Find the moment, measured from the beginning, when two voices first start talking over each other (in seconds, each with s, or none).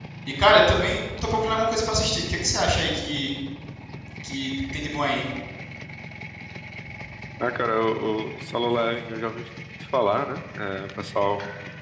none